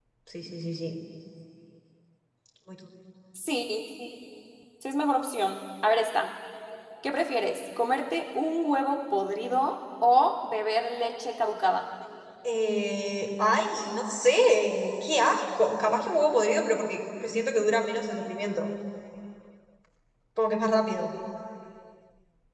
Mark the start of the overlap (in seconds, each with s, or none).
none